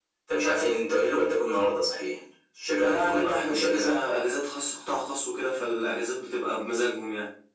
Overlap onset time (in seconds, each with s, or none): 2.8 s